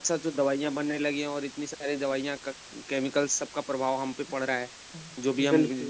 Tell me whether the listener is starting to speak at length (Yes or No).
No